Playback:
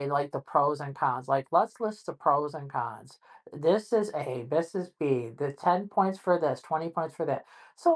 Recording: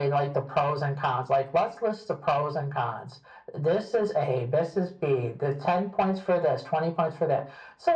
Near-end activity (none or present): none